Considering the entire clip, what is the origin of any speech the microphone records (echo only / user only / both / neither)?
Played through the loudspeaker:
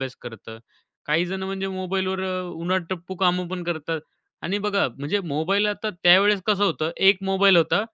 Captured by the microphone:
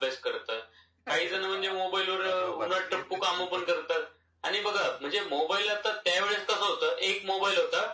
both